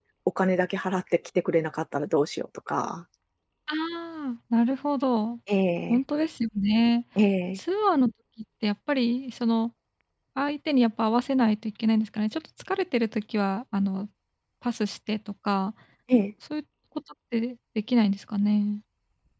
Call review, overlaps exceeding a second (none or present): none